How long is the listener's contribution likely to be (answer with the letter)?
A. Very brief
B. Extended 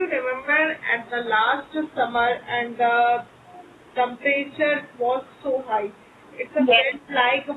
A